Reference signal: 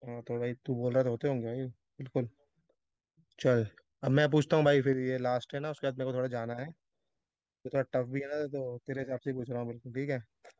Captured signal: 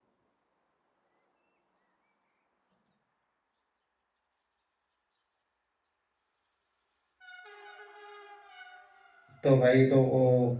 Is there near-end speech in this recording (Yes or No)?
Yes